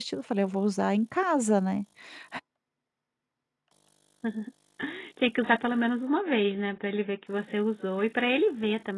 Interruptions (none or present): none